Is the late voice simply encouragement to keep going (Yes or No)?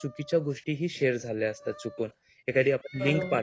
Yes